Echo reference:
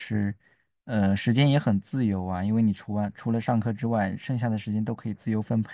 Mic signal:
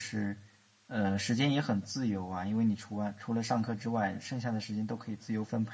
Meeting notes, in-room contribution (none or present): none